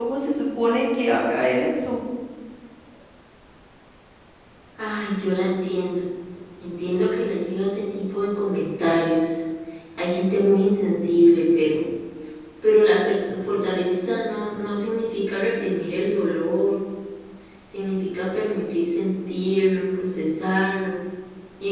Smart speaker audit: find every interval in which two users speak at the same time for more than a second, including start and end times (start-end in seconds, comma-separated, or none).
none